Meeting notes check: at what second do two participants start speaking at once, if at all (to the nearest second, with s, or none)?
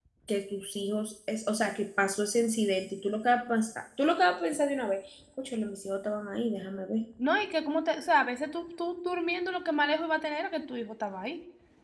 none